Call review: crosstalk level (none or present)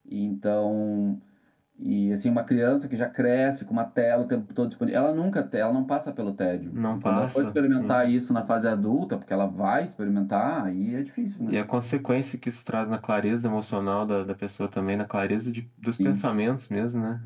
present